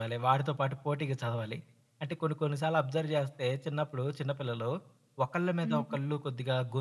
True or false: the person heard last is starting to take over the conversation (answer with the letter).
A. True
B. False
B